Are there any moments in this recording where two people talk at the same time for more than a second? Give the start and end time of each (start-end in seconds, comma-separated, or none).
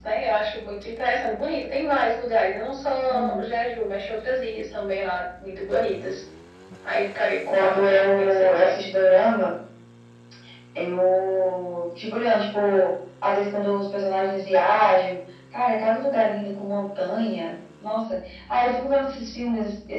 7.6-8.8